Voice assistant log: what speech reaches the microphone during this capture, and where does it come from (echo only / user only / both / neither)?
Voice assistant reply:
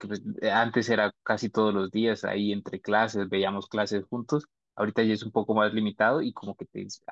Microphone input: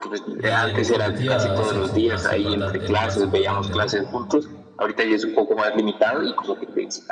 both